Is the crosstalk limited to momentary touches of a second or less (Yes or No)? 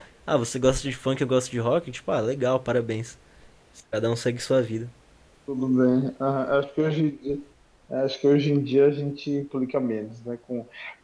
Yes